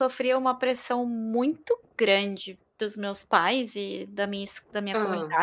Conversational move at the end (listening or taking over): listening